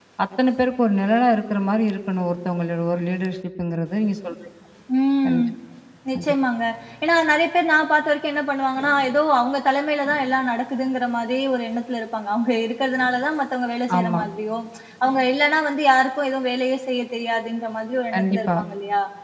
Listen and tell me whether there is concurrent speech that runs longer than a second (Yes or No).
No